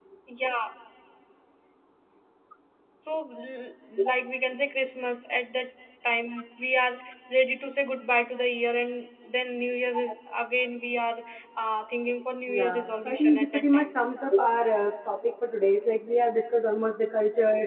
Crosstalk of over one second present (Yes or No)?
Yes